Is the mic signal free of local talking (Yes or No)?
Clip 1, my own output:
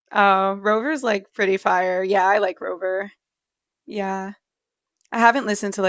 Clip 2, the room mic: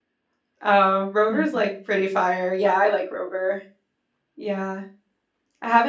No